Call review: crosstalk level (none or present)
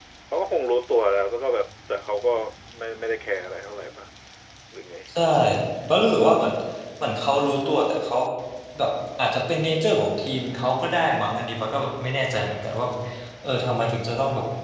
none